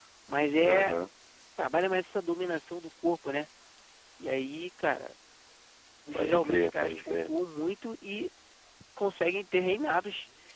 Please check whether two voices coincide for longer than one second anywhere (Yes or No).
Yes